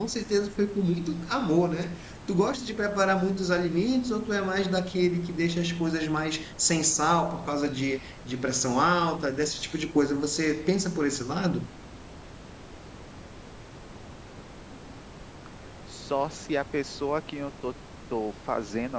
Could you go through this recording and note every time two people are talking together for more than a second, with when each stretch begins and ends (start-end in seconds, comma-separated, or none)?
none